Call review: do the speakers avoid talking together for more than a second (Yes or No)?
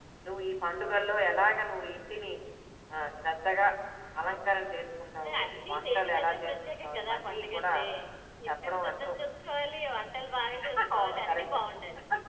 No